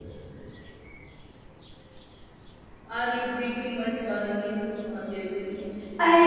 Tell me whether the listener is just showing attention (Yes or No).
No